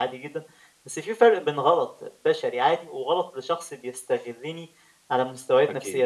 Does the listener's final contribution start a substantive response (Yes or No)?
No